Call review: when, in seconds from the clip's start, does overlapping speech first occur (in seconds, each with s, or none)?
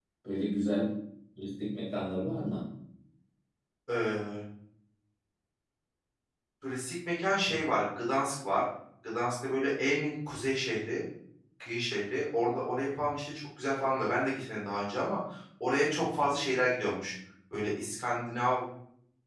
none